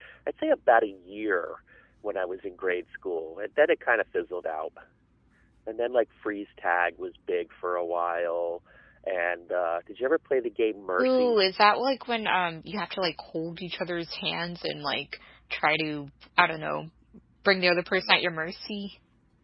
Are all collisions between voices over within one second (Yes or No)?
Yes